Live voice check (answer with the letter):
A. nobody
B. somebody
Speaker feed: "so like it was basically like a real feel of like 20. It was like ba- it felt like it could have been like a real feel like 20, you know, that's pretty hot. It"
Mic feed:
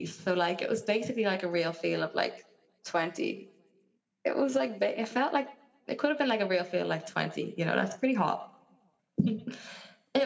A